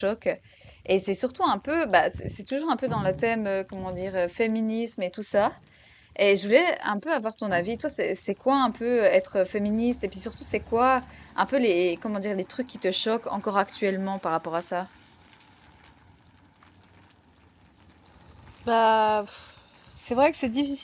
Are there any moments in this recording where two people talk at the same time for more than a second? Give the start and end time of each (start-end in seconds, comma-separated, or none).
none